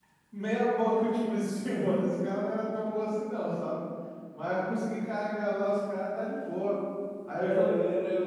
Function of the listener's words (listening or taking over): taking over